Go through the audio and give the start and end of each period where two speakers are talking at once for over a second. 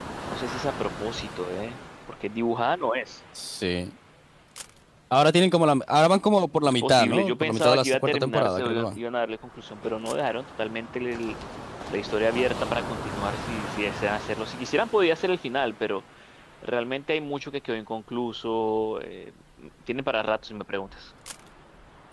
6.6-9.0

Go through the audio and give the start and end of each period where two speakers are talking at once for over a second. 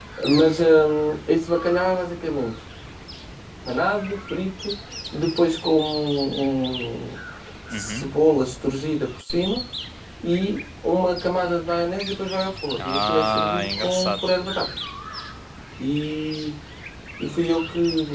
12.8-14.2

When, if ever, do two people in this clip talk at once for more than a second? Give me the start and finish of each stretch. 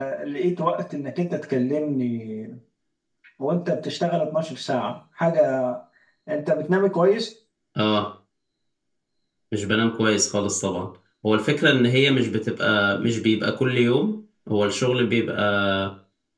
none

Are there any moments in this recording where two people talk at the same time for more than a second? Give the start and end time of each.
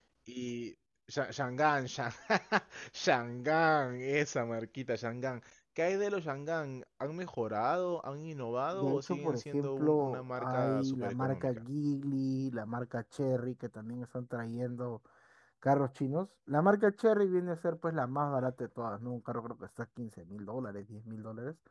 8.7-11.6

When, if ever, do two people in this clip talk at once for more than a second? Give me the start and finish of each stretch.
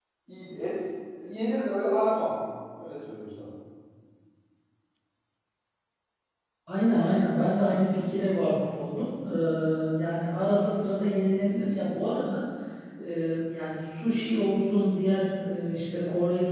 none

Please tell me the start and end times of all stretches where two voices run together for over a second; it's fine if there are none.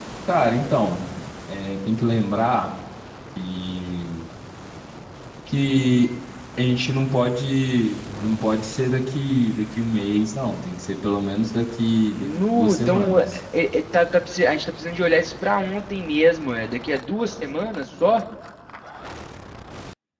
12.1-13.4

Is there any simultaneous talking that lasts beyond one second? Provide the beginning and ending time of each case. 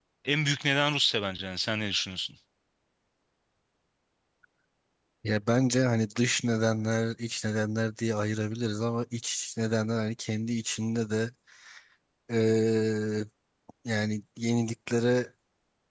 none

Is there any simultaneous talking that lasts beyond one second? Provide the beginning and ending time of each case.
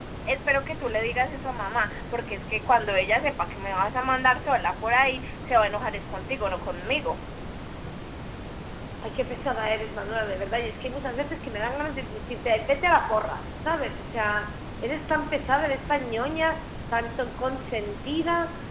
none

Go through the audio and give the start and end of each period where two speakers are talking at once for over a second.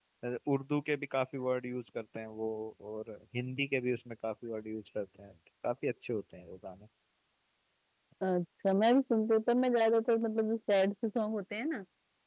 none

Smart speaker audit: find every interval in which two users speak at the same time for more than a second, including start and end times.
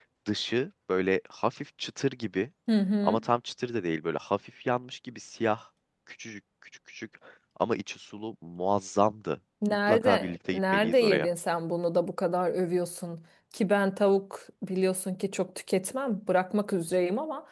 9.9-11.3

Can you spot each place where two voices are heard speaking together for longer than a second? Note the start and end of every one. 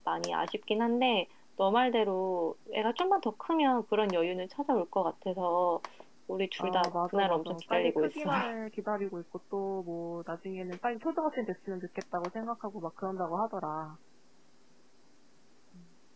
6.6-8.3

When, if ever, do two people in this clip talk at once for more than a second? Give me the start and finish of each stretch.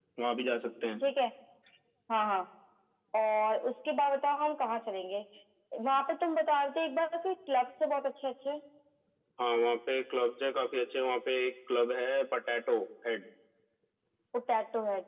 none

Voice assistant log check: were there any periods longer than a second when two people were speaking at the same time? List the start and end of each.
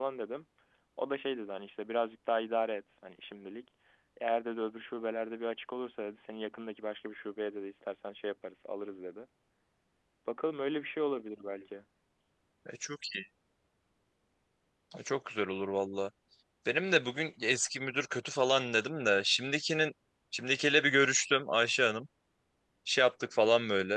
none

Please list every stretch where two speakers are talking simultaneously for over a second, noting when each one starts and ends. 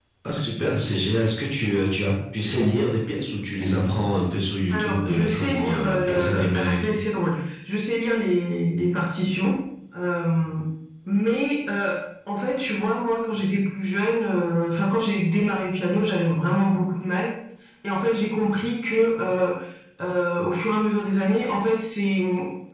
4.7-7.0

